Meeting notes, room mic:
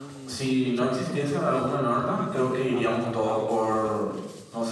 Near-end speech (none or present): present